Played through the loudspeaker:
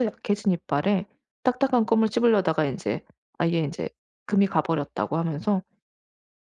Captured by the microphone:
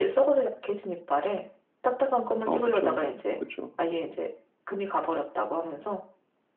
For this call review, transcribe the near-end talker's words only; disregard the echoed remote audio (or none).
아 그쵸. 그쵸.